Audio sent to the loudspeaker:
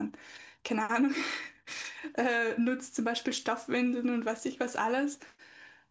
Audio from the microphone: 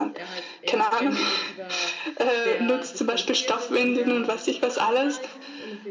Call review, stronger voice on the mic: echo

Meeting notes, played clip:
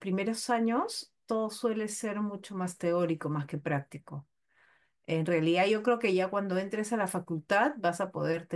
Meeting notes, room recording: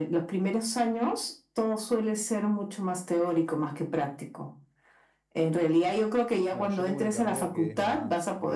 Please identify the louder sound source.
echo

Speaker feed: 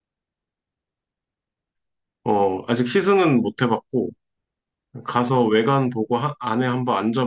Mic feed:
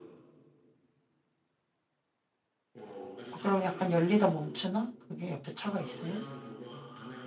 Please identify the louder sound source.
user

